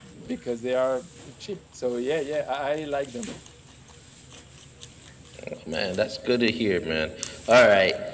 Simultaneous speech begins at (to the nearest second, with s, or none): none